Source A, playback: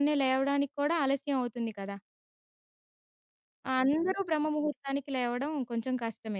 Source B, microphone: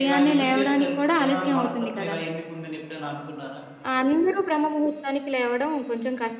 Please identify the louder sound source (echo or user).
echo